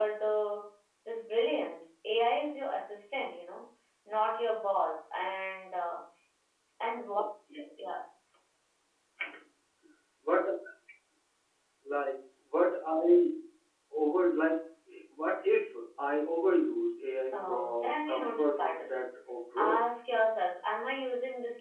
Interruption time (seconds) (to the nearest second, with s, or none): 17 s